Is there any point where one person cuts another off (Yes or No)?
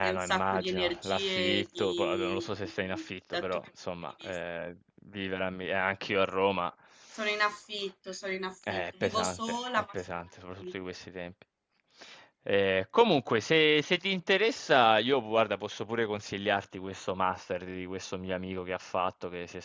Yes